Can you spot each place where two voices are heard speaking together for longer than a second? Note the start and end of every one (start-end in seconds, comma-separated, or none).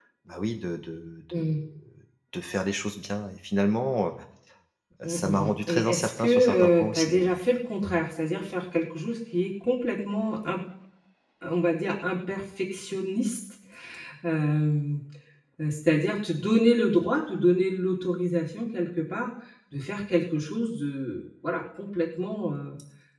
5.1-7.3